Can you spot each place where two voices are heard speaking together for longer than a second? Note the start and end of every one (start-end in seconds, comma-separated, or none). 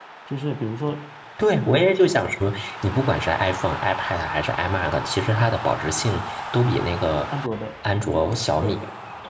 none